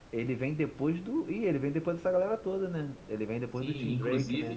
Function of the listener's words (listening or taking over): taking over